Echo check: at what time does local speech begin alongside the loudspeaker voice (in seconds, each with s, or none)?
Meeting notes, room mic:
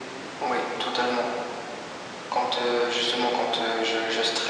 none